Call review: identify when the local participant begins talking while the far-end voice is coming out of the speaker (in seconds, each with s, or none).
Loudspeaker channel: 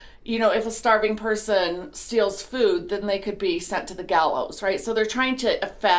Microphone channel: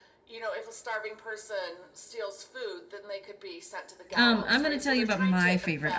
4.2 s